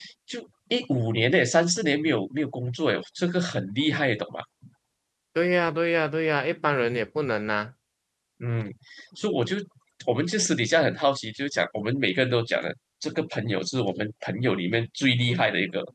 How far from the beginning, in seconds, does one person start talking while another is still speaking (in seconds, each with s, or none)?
none